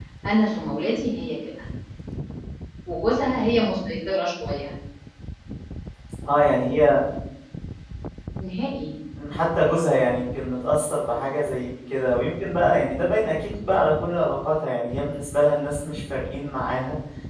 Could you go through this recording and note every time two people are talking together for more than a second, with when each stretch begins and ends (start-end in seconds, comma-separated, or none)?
none